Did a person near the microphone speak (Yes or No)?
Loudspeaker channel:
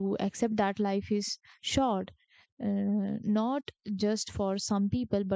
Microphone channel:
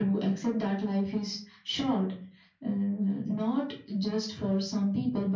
No